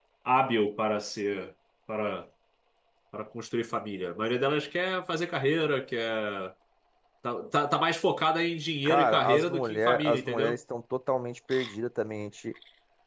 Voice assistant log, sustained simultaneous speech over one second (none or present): present